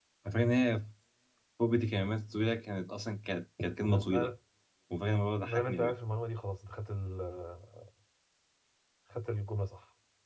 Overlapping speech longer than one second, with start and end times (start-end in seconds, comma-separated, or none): none